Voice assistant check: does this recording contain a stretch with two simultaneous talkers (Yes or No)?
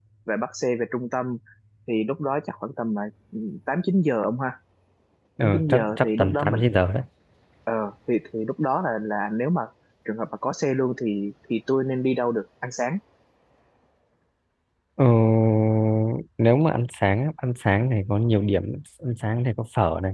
Yes